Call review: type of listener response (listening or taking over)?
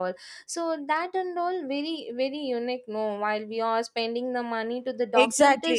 taking over